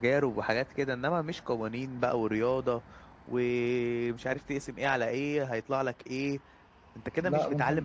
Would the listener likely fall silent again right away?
Yes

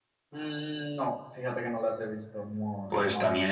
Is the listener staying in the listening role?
No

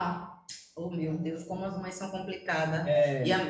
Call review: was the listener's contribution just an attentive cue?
Yes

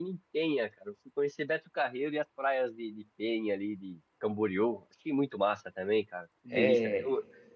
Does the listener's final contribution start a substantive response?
No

